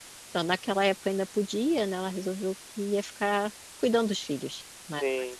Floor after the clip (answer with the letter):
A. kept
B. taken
B